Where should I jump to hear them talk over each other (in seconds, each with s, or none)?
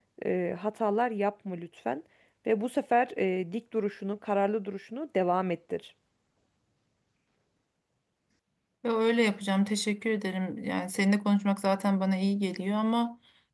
none